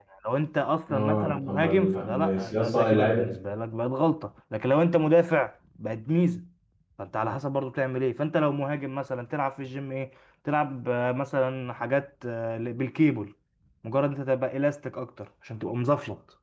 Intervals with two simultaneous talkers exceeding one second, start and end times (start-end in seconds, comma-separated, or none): 0.9-3.3